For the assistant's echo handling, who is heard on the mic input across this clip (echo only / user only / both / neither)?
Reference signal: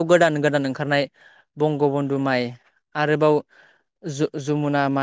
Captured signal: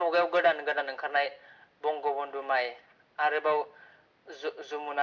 echo only